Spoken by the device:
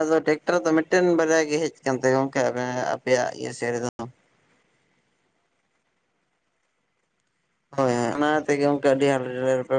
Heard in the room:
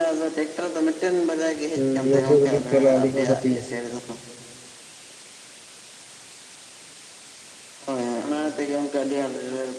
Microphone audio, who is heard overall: both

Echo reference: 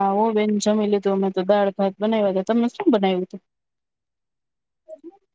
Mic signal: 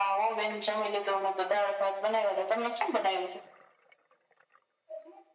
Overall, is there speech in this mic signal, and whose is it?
echo only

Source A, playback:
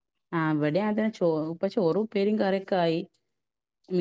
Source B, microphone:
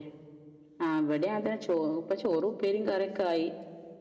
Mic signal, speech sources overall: echo only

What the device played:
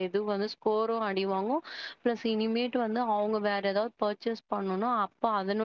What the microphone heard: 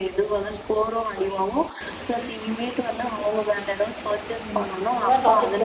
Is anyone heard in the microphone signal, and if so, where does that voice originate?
both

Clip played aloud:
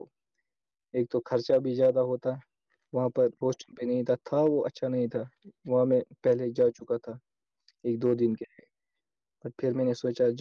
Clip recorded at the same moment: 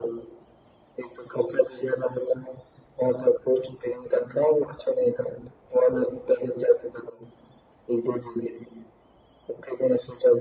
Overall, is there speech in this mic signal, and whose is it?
echo only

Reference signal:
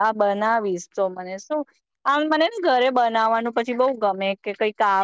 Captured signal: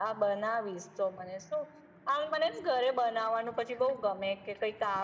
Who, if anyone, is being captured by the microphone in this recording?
echo only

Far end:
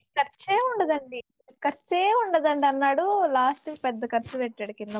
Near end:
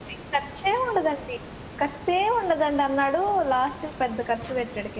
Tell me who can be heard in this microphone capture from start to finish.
echo only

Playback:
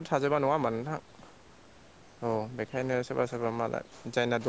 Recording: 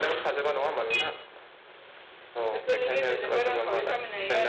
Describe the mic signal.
both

